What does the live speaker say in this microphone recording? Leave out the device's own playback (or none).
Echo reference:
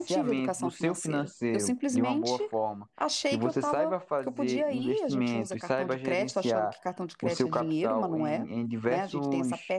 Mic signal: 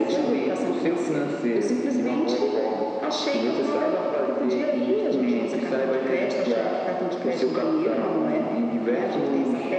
none